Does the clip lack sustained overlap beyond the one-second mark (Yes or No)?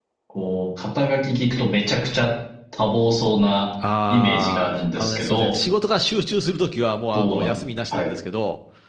No